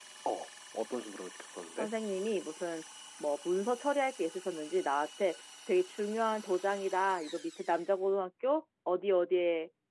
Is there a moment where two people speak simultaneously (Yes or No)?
No